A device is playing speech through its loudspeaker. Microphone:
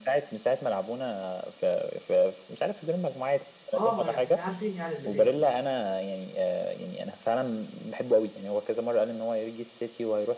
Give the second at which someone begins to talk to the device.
3.7 s

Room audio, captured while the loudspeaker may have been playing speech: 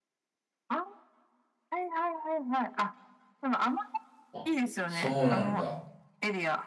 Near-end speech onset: 4.3 s

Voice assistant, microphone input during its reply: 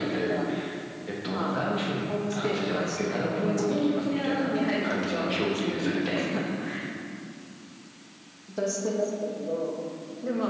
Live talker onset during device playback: none

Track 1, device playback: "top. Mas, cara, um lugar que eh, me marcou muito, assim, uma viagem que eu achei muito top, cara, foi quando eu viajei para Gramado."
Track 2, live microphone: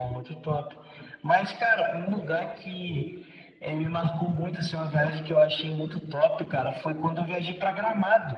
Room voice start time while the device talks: none

